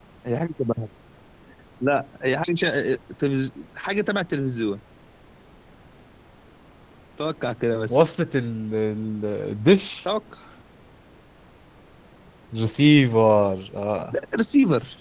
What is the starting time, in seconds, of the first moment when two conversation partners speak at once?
none

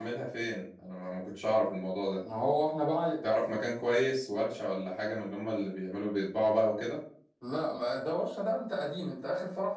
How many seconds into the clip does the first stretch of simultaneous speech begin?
none

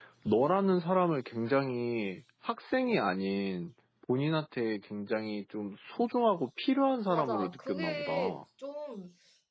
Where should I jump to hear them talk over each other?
7 s

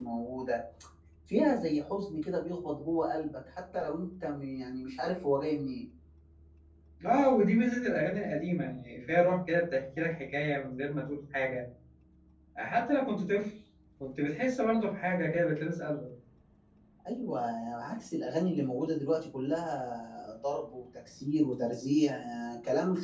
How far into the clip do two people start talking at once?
none

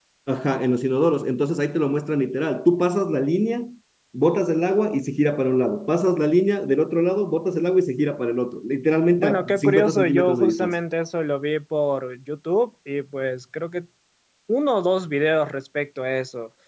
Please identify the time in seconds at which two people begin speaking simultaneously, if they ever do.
9 s

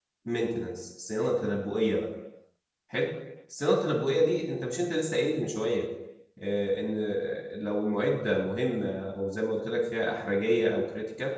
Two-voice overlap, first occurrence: none

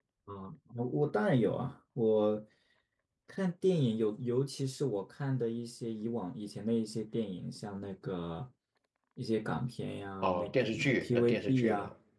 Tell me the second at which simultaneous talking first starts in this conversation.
10 s

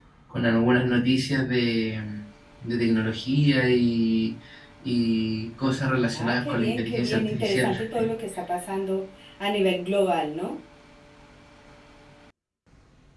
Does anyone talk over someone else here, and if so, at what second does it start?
6 s

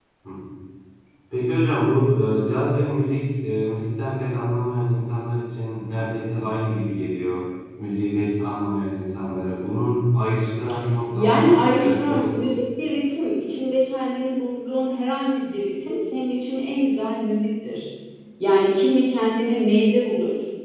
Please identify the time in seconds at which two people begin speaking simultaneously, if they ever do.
11 s

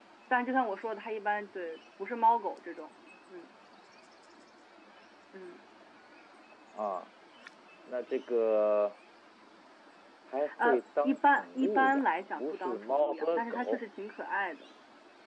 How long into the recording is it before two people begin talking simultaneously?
11 s

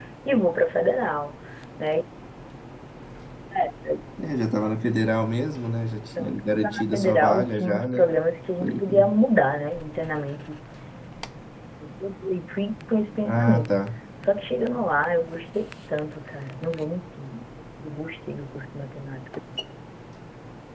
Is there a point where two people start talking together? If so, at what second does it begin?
6 s

